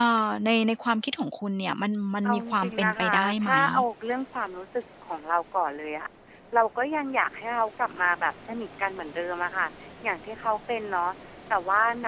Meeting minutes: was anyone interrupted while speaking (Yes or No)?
Yes